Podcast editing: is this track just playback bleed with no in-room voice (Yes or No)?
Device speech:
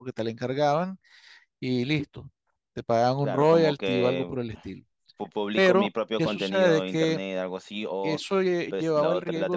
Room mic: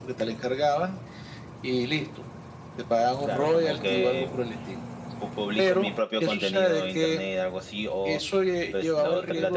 Yes